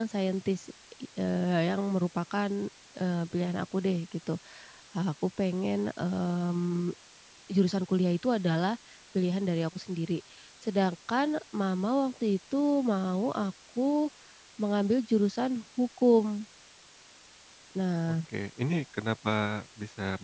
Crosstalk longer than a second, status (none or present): none